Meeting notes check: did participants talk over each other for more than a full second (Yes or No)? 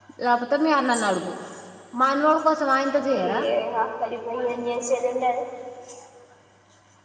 No